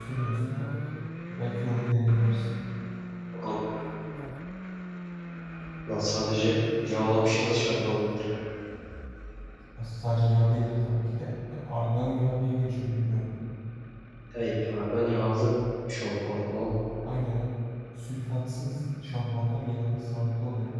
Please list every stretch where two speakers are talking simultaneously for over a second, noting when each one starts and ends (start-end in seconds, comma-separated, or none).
none